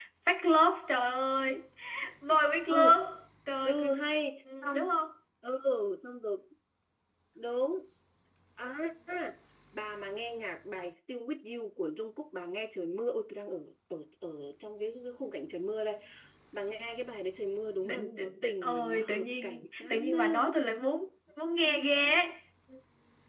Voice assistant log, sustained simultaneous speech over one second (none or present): present